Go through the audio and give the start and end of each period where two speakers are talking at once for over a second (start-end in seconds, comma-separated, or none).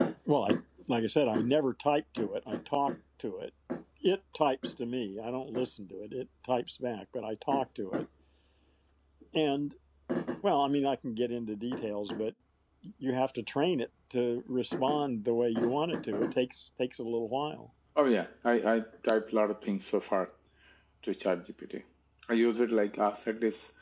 none